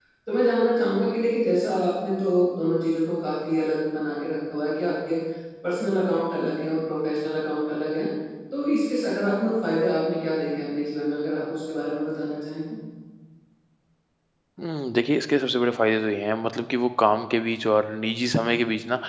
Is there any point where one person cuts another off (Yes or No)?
No